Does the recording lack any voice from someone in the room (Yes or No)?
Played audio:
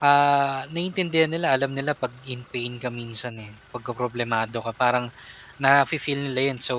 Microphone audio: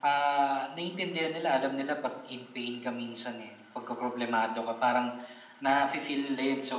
Yes